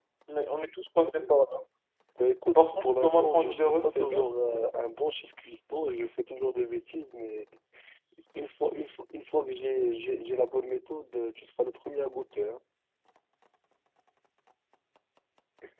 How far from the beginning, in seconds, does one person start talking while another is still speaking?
2 s

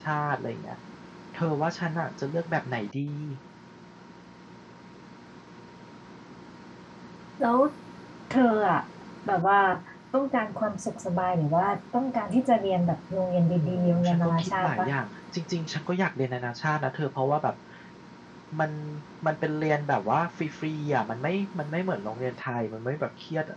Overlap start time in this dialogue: 14 s

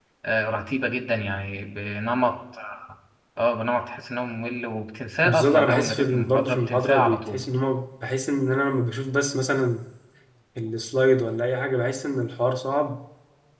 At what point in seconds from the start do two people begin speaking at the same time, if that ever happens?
5 s

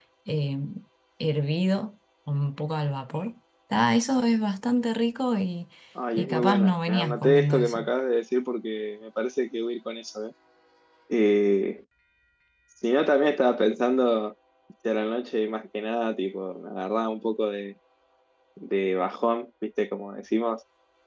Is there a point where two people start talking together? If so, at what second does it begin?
6 s

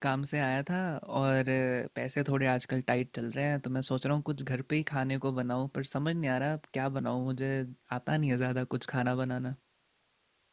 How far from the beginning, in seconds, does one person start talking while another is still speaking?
none

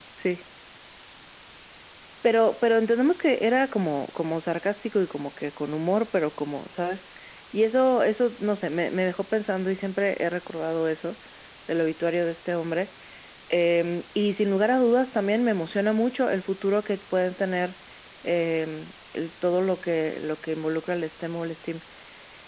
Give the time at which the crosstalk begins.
none

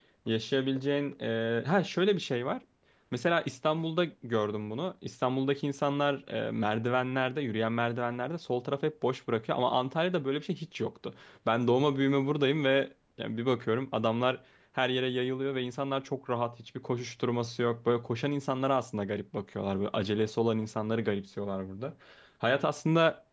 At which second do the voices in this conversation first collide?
none

